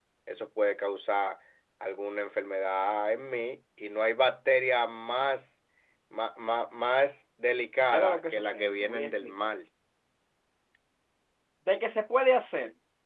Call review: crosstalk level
present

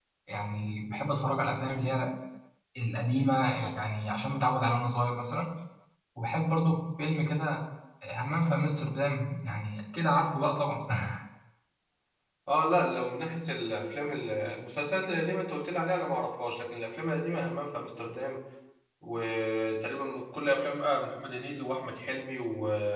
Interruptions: none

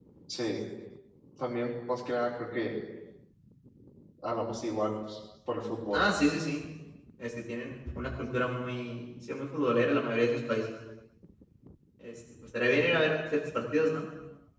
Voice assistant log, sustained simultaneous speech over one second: none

